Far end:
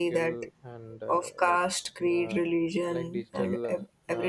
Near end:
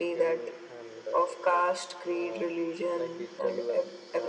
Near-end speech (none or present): none